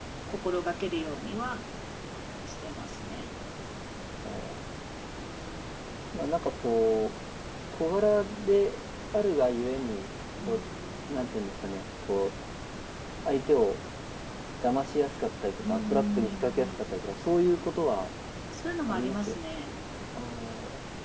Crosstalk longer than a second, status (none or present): present